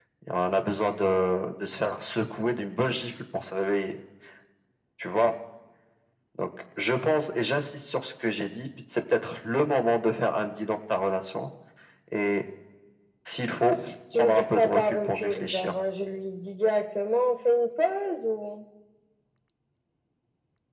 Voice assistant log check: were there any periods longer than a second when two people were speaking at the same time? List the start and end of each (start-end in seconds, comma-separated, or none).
14.2-15.7